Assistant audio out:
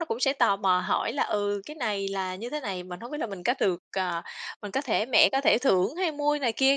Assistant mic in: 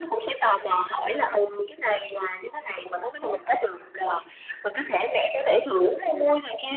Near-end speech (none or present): none